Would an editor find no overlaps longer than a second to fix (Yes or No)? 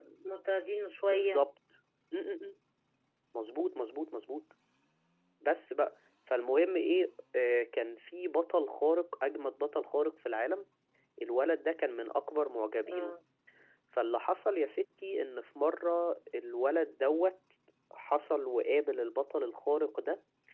Yes